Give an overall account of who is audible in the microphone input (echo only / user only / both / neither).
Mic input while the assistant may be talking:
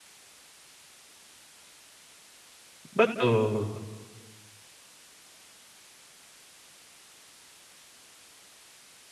user only